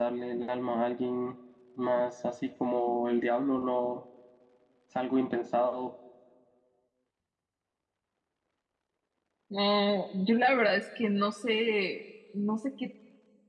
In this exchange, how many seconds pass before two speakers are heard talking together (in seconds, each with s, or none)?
none